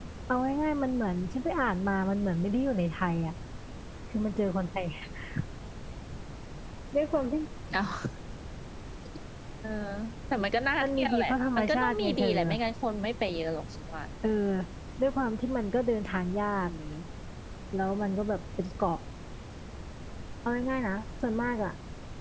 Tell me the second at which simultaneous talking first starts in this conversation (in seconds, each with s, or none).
10.8 s